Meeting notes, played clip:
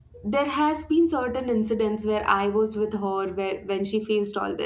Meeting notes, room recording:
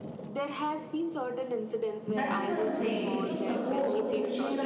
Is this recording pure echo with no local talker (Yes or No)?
No